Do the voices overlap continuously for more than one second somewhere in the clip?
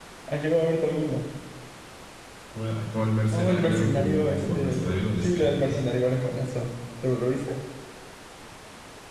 Yes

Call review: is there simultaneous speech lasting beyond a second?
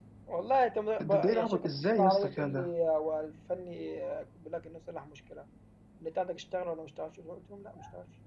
Yes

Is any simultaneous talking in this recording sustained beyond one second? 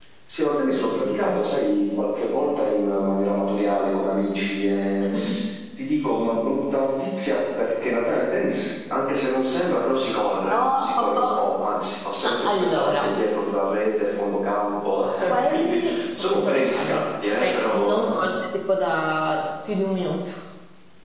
Yes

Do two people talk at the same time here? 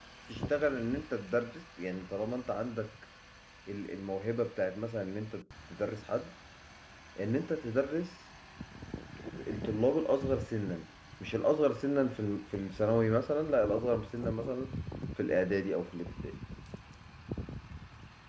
No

